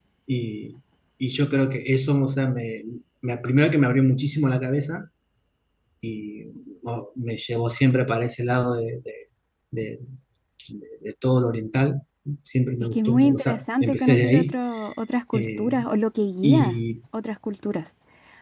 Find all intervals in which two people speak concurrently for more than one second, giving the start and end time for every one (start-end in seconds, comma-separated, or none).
12.9-14.5